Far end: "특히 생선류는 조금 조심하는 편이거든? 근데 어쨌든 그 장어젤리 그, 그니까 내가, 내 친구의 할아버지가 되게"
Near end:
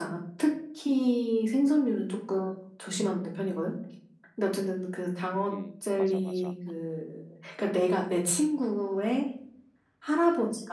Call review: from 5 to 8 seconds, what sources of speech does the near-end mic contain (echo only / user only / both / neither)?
both